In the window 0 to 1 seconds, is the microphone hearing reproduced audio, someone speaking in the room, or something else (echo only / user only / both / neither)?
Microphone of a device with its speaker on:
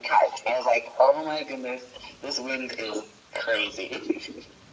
echo only